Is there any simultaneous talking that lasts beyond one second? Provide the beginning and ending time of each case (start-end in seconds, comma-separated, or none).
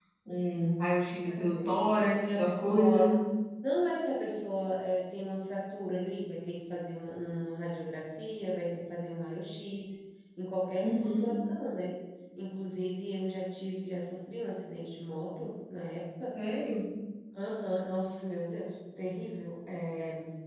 1.3-3.0